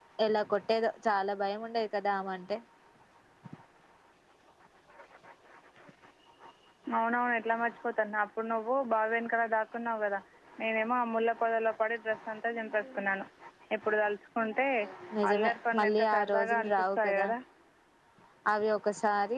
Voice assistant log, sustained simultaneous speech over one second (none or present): present